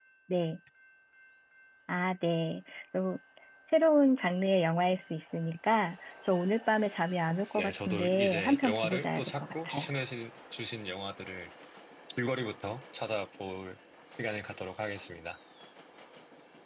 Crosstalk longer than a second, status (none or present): present